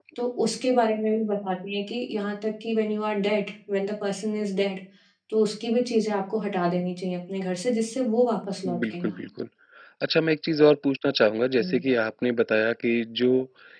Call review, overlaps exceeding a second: none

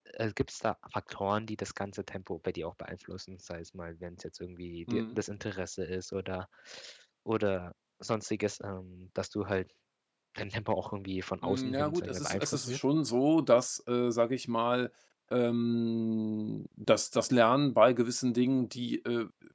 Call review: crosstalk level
present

